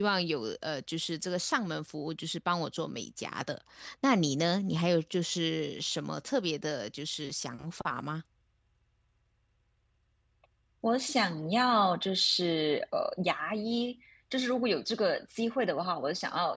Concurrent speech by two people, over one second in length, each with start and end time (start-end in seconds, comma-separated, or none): none